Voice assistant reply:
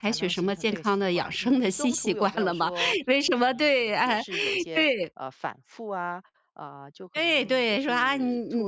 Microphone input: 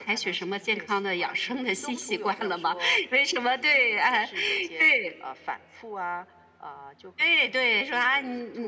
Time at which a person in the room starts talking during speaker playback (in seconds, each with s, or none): none